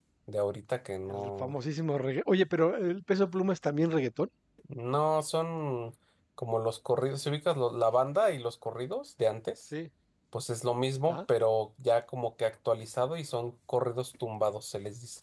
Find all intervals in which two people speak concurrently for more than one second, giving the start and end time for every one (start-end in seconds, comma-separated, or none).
none